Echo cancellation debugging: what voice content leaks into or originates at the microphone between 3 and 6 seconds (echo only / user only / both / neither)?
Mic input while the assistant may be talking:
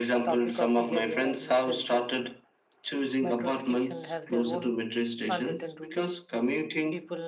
both